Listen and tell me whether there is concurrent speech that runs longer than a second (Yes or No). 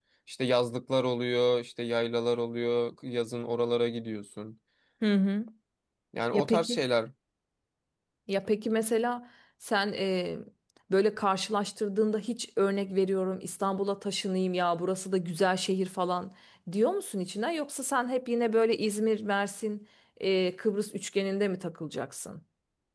No